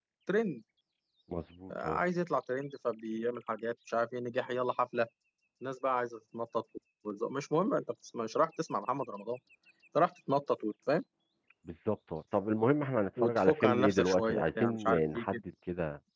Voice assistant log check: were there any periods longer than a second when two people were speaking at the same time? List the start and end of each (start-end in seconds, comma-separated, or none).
13.2-15.4